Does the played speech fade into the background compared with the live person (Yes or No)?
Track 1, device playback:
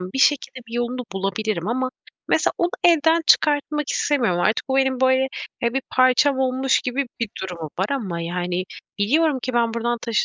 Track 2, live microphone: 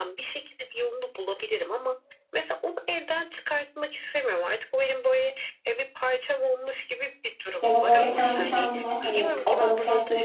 Yes